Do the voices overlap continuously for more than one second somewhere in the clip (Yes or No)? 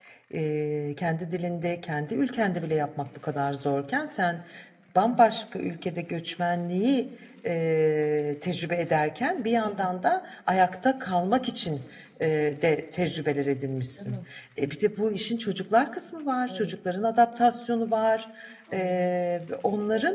No